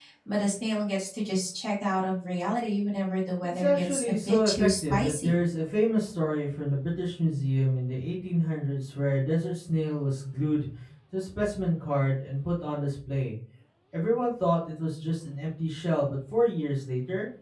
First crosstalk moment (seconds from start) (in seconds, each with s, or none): 3.4 s